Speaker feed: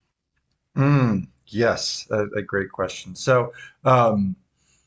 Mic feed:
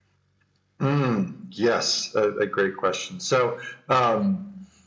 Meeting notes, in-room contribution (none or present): none